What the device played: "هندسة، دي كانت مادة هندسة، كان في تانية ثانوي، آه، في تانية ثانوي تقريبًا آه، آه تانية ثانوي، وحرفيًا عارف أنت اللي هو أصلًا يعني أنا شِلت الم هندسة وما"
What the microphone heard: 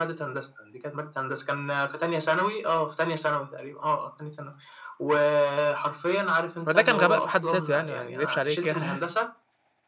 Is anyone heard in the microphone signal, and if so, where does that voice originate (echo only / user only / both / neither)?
both